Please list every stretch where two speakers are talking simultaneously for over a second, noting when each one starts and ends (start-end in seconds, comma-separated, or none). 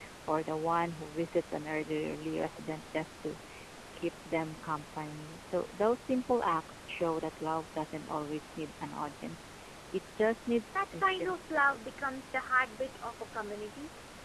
10.8-12.0